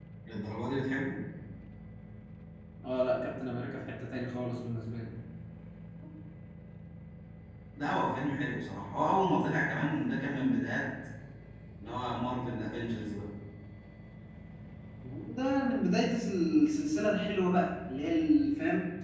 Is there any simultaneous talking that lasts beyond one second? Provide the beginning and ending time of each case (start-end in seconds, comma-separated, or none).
none